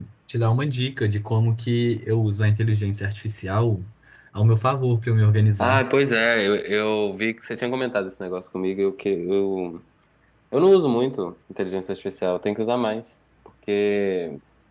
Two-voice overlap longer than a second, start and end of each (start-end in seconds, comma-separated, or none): none